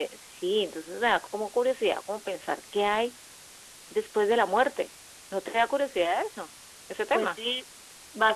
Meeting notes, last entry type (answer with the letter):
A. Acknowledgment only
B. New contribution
B